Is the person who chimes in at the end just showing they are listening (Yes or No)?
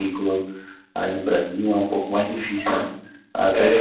Yes